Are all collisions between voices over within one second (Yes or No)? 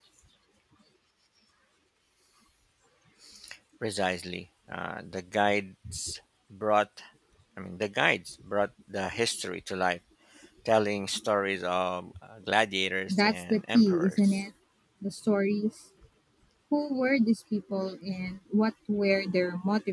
No